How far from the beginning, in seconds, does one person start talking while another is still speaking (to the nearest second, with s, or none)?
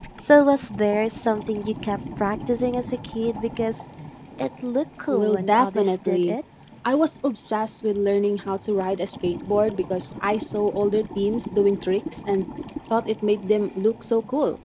5 s